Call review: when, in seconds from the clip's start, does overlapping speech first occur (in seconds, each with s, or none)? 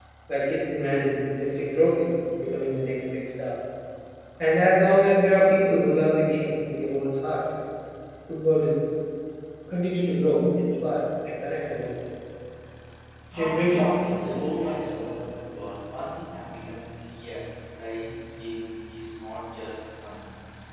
13.3 s